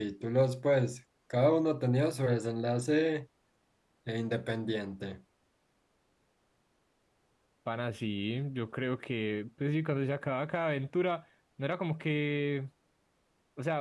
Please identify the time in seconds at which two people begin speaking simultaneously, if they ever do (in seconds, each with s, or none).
none